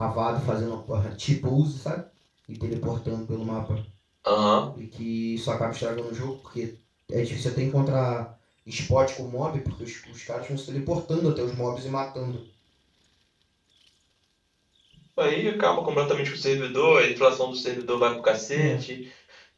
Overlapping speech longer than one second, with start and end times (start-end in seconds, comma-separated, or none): none